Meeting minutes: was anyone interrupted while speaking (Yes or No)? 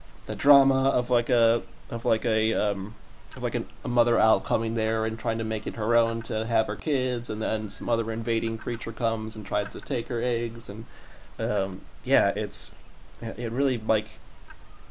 No